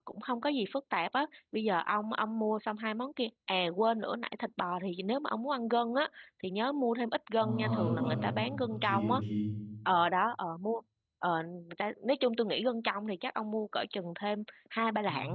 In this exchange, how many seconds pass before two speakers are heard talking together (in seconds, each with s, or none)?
7.4 s